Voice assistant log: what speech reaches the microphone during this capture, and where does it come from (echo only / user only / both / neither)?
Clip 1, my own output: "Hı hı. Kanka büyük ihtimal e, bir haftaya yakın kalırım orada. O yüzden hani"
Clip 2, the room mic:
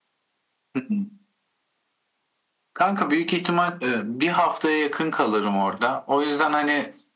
echo only